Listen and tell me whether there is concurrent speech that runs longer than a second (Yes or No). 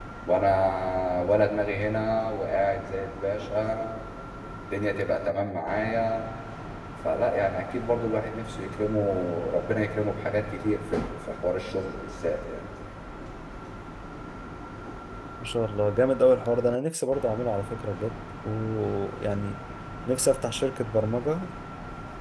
No